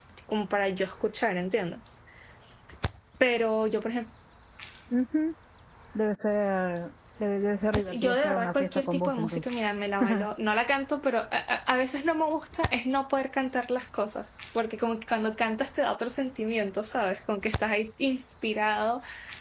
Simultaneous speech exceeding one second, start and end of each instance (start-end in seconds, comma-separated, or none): 7.8-9.4